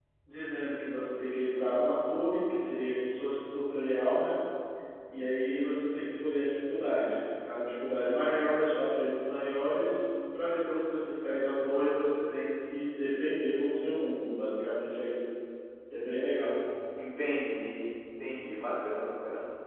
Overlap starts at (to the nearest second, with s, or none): none